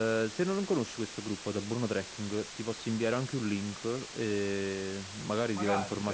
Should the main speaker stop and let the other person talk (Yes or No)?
No